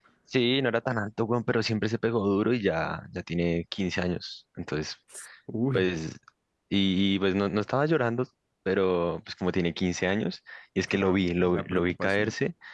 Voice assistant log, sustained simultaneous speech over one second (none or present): present